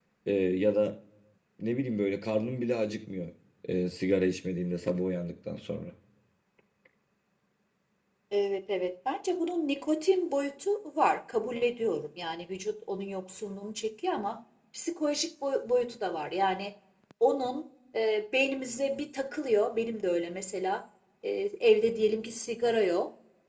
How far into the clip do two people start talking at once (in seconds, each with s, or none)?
none